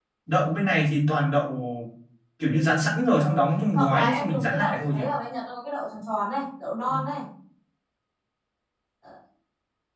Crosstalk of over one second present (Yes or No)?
Yes